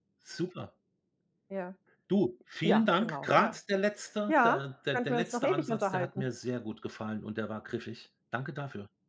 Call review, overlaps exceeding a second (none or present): present